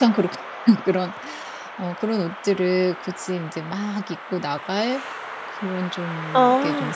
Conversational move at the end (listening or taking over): listening